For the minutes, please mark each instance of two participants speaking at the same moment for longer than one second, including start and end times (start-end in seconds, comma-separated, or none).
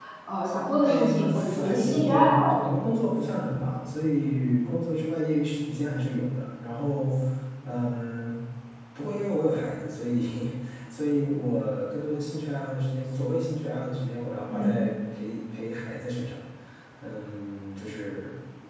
0.9-2.6